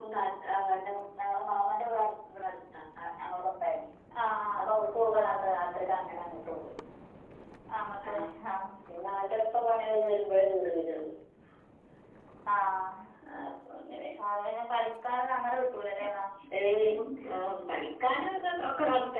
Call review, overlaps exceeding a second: none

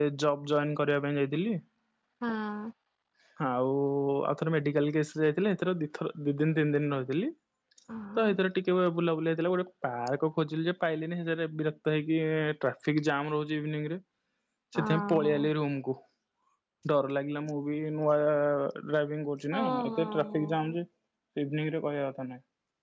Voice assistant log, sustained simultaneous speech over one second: present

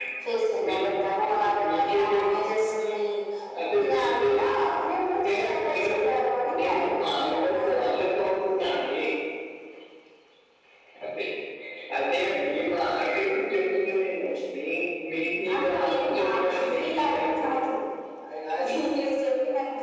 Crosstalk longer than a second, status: present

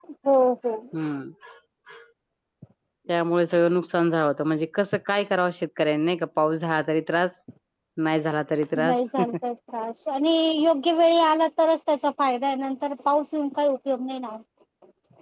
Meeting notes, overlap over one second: none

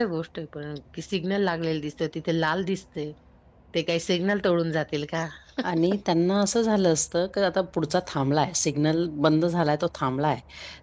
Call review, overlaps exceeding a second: none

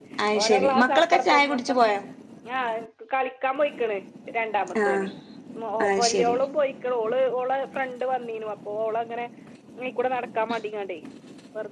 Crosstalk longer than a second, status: present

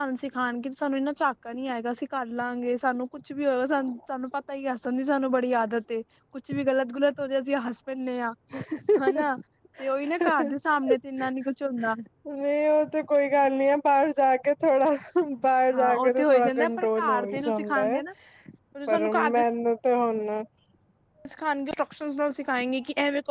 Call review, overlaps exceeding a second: present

